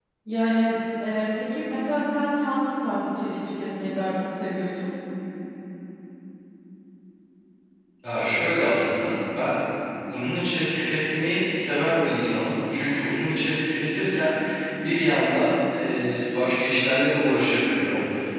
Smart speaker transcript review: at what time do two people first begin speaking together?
none

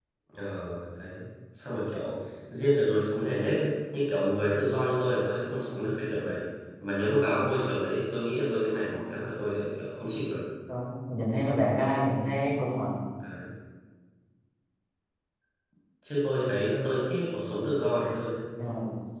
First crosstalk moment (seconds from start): none

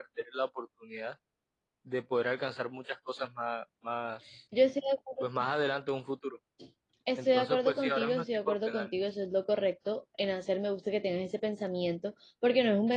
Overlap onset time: 7.2 s

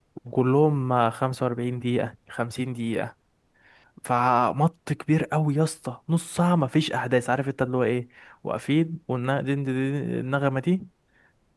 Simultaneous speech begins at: none

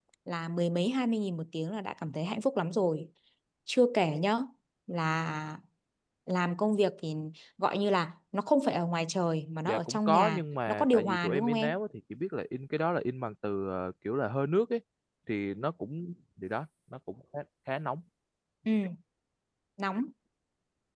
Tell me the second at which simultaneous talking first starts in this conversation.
9.7 s

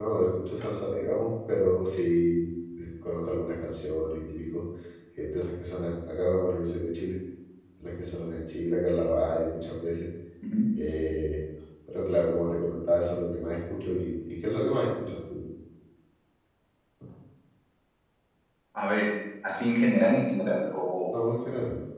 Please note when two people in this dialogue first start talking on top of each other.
none

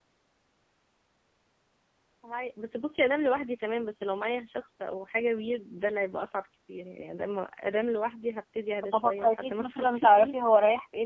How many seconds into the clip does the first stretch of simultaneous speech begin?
8.8 s

